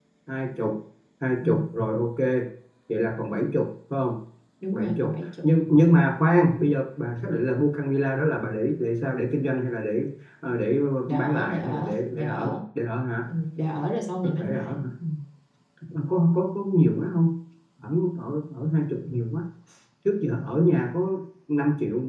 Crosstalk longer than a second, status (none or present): present